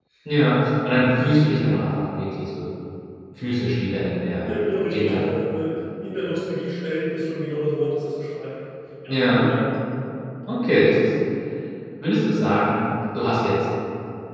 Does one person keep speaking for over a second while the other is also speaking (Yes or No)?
No